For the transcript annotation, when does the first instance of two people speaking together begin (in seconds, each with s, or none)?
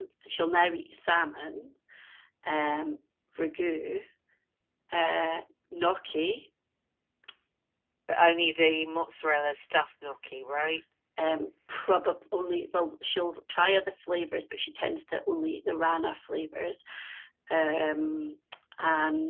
none